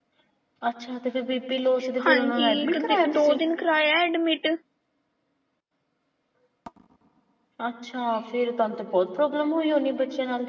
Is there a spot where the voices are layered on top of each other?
Yes, from 2.0 s

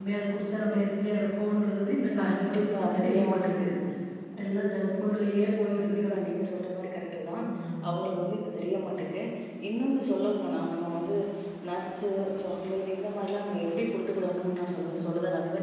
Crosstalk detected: Yes, from 2.2 s

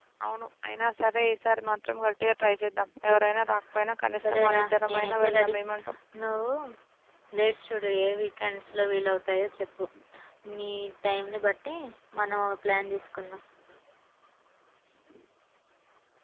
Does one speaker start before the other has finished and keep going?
Yes, from 4.1 s

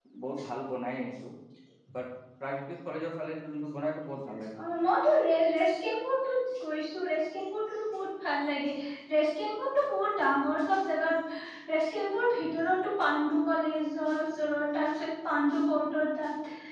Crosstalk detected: No

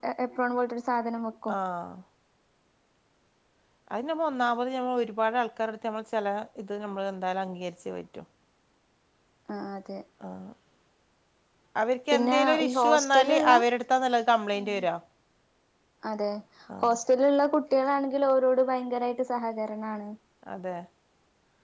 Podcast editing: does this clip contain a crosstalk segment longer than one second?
Yes, from 12.1 s

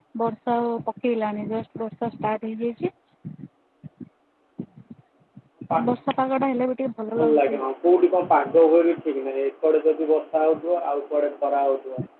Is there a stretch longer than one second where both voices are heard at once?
No

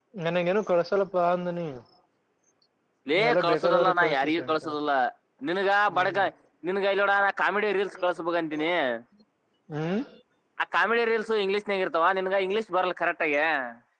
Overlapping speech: Yes, from 3.3 s

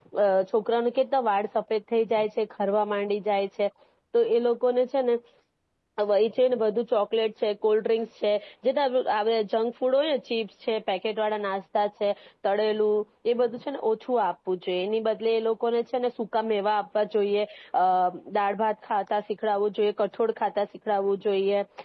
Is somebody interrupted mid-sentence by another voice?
No

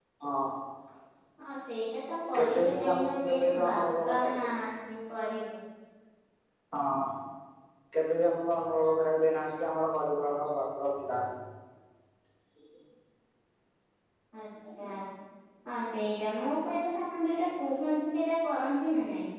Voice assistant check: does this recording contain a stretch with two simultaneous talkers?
Yes, from 2.3 s

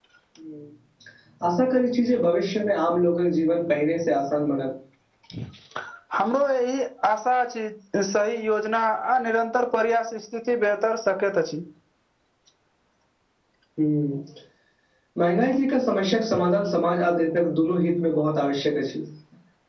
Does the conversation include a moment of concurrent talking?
No

